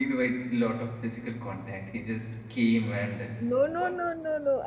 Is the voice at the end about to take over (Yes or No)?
Yes